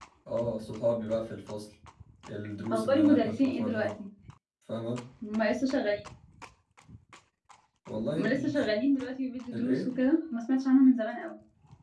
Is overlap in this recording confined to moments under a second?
No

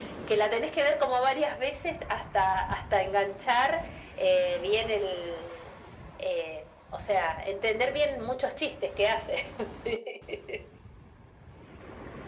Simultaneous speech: No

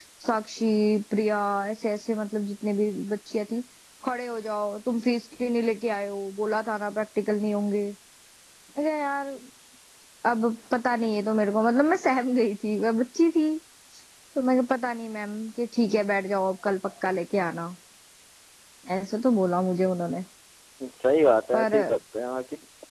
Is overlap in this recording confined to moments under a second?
Yes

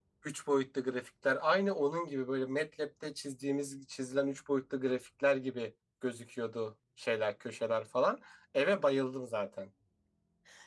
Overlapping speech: No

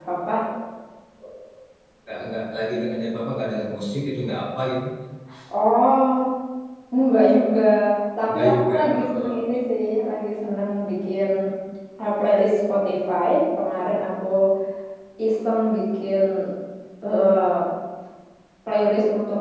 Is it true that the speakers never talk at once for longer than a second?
No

